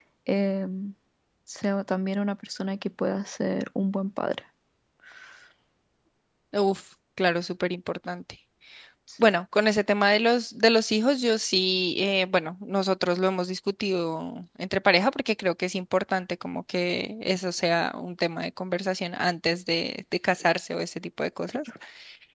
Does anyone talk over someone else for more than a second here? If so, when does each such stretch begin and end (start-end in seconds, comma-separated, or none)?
none